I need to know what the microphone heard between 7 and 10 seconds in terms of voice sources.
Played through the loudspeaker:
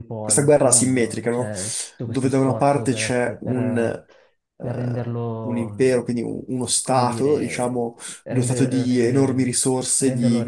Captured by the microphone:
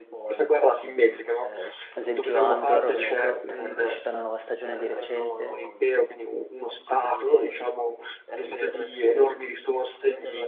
echo only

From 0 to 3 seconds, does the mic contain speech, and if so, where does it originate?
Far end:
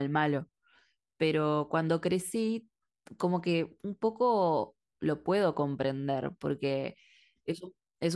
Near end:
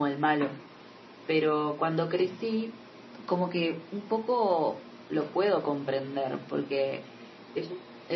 echo only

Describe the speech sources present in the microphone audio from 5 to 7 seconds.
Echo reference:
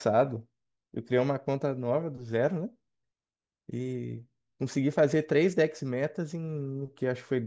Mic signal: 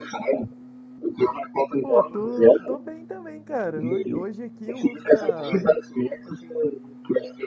both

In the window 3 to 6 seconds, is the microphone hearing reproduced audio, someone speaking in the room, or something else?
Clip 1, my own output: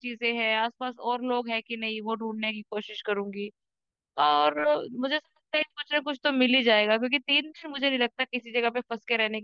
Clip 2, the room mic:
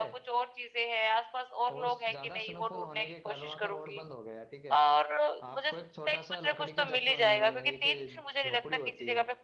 both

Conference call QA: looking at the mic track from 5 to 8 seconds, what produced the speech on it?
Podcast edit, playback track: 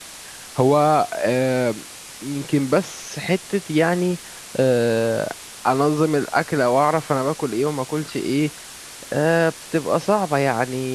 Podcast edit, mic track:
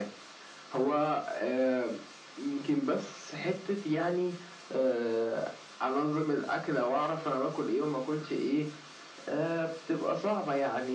echo only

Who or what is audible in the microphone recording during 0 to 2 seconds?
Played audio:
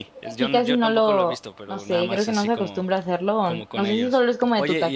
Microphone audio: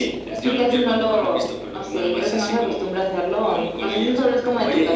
echo only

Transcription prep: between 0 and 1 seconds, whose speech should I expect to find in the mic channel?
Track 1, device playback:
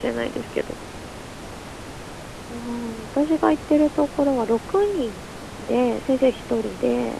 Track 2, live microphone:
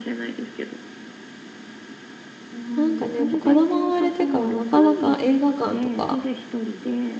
echo only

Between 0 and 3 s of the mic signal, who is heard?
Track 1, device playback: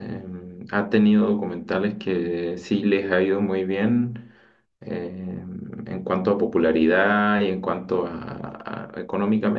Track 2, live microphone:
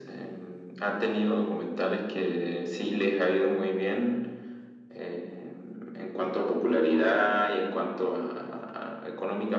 echo only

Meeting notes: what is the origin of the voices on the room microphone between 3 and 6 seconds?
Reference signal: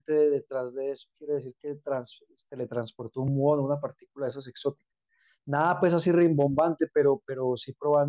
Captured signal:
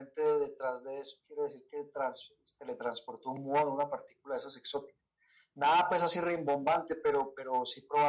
echo only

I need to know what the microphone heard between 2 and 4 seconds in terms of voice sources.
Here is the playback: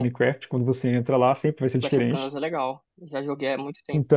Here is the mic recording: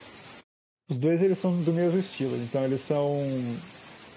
user only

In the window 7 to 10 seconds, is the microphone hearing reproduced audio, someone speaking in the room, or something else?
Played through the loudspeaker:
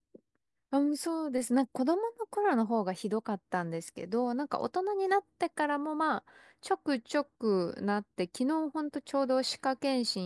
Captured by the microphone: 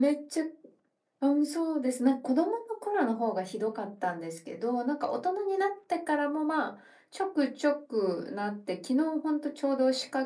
echo only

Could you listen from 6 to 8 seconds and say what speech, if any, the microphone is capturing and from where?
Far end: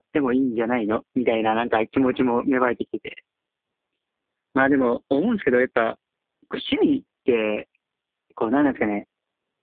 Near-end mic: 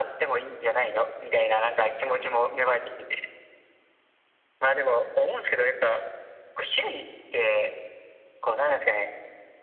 echo only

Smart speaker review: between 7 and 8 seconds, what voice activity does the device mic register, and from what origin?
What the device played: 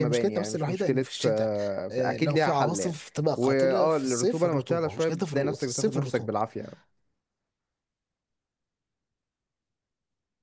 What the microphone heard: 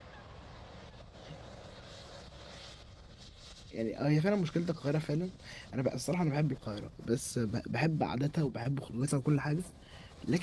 user only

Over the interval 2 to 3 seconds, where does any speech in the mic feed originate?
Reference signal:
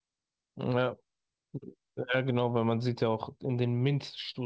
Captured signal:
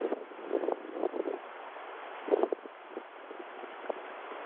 neither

